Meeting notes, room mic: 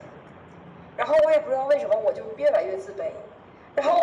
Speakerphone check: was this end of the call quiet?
Yes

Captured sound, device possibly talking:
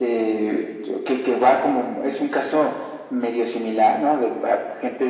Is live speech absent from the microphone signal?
Yes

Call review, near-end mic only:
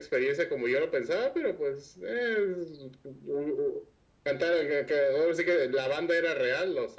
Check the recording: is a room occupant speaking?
No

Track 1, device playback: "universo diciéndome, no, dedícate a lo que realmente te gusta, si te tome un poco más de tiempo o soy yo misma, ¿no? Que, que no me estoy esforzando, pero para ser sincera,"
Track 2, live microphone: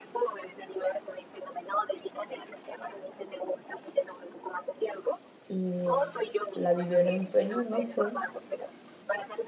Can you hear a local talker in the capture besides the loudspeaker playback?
Yes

